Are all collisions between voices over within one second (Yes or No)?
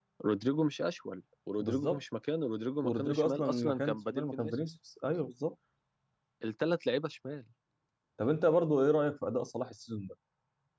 No